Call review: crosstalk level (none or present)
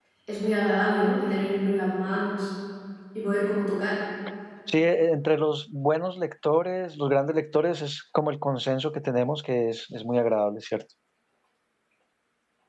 none